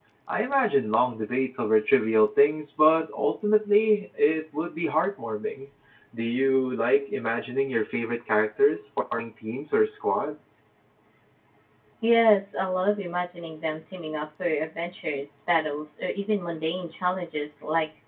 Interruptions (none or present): none